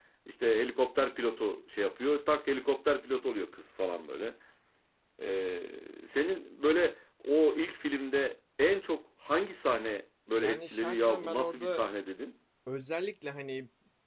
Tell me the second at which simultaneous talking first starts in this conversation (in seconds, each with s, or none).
10.4 s